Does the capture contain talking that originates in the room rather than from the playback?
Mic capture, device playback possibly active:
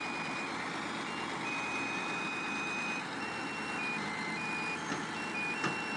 No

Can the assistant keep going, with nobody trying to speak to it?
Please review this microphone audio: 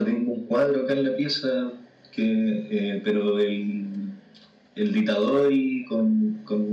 Yes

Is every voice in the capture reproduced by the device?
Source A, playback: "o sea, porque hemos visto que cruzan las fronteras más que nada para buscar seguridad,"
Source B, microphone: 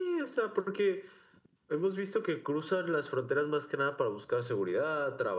Yes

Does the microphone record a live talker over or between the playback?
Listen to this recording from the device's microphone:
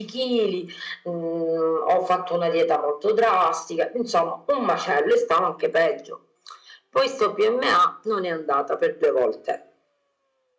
No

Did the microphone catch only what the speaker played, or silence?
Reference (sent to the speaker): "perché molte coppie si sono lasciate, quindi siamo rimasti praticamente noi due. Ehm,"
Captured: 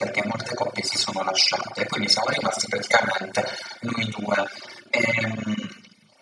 Yes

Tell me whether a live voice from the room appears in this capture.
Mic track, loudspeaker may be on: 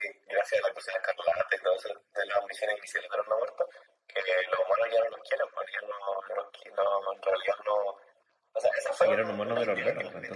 Yes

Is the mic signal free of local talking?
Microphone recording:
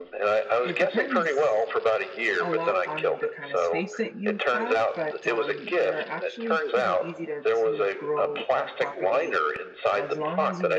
No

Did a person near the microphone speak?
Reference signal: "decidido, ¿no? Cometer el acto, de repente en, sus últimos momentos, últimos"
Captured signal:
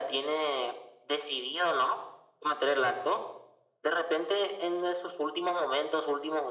No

